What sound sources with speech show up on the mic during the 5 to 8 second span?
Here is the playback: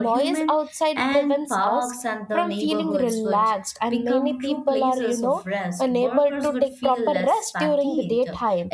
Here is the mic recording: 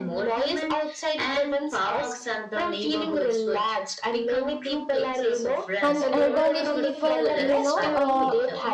both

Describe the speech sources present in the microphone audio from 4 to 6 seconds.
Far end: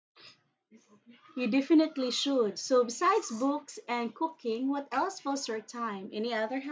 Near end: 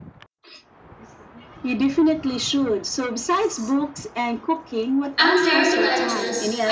both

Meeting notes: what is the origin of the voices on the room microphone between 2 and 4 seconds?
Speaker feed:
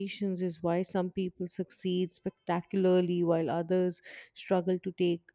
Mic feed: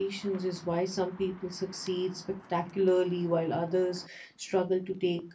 echo only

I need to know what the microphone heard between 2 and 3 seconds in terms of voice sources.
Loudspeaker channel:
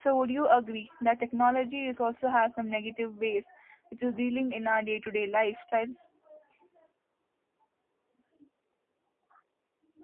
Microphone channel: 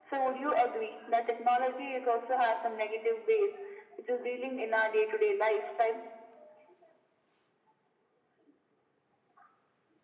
echo only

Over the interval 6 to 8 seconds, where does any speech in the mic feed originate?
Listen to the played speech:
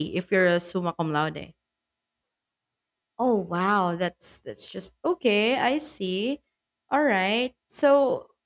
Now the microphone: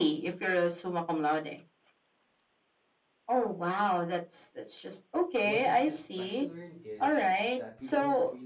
both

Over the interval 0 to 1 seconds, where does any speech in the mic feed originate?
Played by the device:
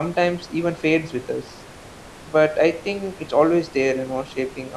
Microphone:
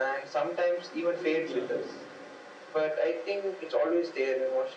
echo only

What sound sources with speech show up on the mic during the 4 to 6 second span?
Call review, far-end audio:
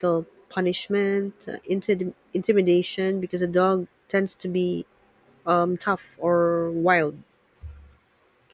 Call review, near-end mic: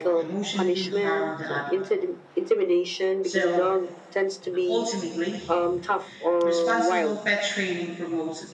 both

